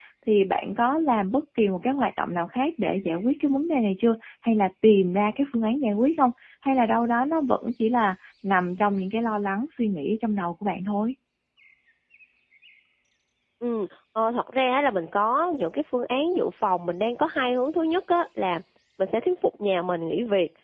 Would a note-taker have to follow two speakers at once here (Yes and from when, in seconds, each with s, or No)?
No